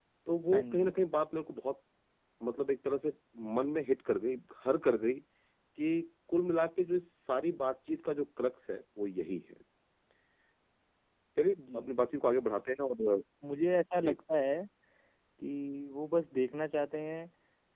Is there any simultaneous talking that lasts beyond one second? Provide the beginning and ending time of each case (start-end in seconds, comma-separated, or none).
none